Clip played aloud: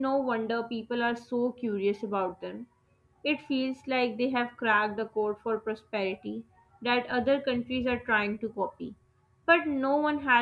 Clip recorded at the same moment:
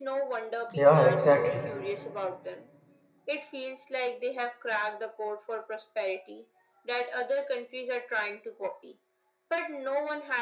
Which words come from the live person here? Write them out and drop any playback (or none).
Yeah, exactly.